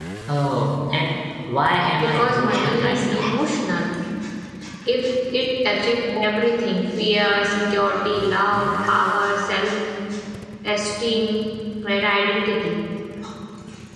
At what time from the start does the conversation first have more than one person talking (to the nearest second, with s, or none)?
2 s